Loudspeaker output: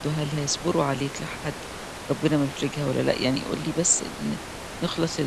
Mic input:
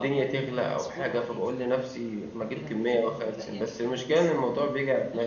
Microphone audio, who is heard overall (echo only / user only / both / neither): both